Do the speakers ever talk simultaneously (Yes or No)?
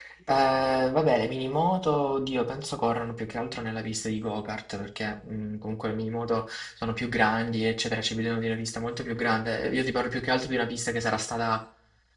No